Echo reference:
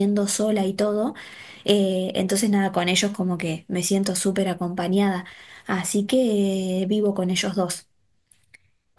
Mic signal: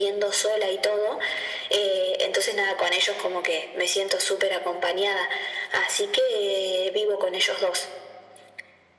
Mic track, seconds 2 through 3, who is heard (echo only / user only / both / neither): echo only